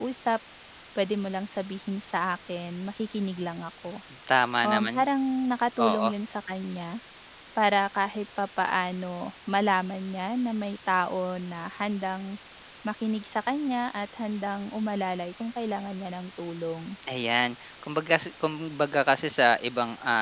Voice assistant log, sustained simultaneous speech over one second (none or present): none